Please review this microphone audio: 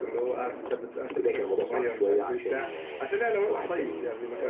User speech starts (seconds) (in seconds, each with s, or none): none